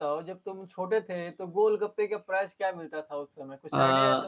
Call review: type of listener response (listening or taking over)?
taking over